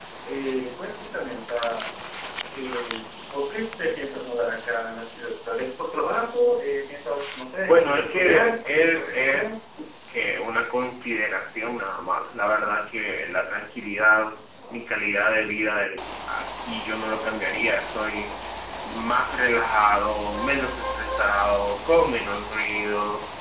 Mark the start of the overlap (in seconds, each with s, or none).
7.7 s